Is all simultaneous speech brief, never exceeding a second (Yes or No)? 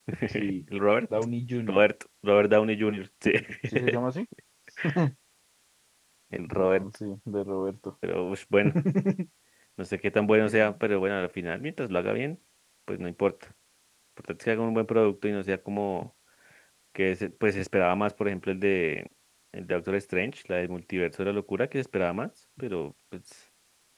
Yes